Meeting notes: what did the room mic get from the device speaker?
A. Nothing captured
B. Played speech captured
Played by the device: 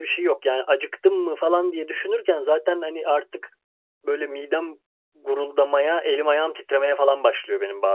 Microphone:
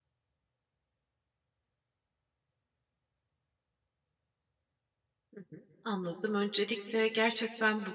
A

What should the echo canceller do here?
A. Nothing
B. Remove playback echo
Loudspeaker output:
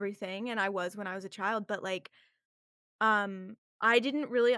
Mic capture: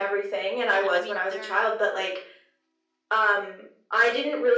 B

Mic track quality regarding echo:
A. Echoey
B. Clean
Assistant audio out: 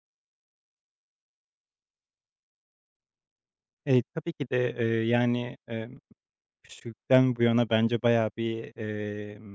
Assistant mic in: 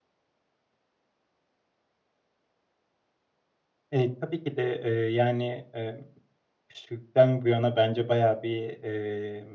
A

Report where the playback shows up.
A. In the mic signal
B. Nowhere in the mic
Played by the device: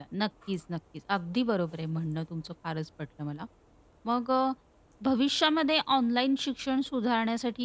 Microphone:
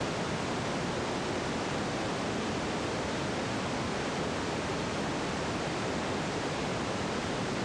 B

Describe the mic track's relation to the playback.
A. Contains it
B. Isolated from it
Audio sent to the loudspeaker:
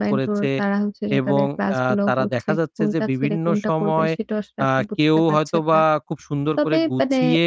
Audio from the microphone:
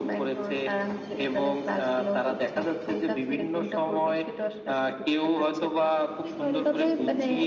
A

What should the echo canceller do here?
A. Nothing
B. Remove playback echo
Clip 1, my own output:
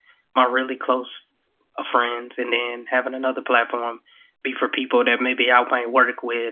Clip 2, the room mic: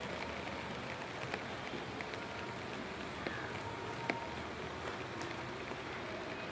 A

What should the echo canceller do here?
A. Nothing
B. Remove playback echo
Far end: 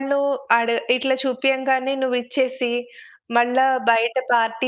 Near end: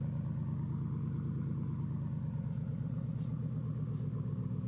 A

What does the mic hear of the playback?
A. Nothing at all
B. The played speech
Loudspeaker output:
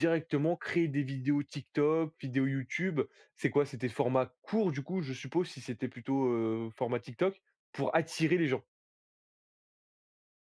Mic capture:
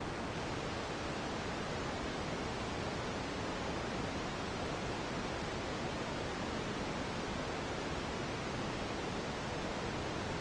A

